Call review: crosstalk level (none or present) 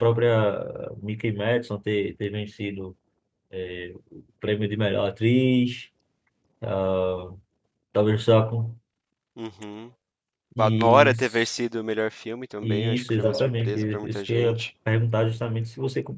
present